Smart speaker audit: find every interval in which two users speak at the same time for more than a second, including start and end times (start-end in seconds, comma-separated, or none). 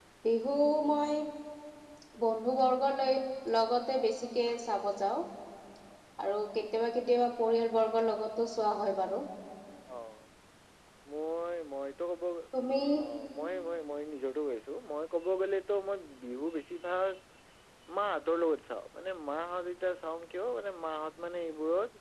none